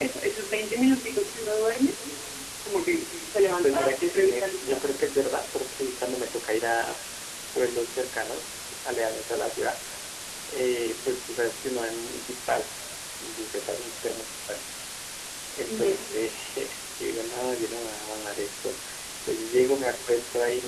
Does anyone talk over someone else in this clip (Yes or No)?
Yes